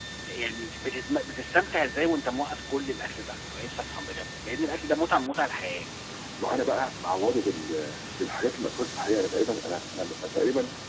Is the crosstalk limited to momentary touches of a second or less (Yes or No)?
Yes